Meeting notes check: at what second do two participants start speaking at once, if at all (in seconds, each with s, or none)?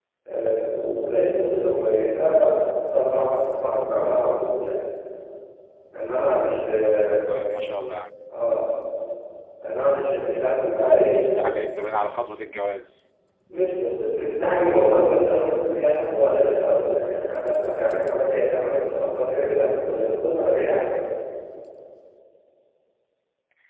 none